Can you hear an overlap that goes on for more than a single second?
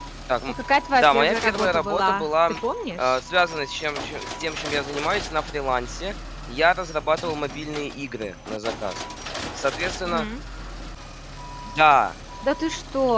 Yes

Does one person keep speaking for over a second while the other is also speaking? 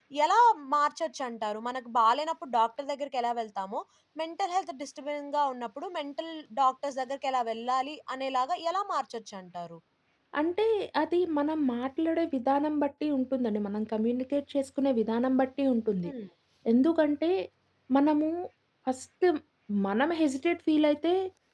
No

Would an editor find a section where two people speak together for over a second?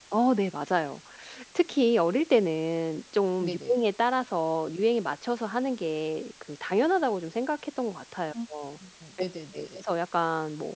No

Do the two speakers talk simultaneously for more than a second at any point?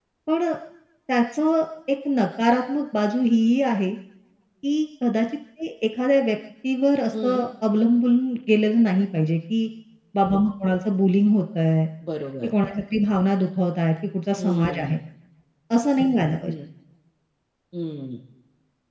No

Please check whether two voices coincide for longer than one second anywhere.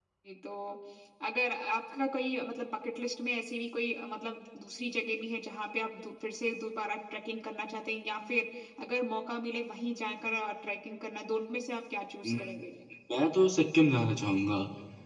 No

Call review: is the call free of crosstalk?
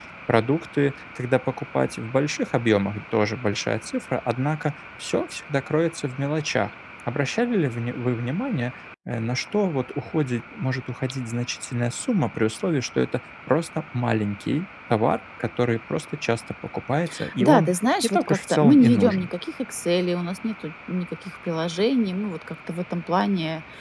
No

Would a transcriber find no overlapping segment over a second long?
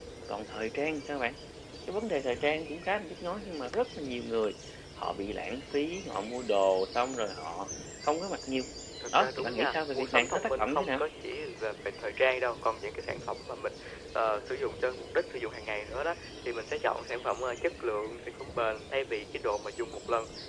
No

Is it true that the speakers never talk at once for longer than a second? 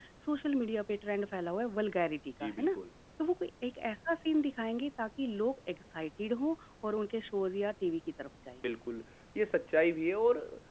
Yes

